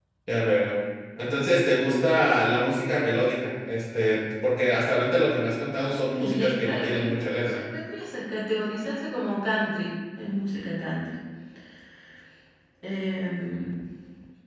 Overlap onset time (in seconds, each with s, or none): 5.9 s